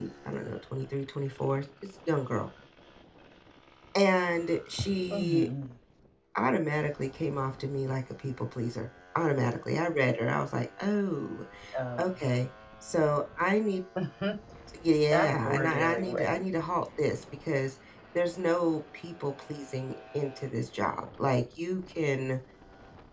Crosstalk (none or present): present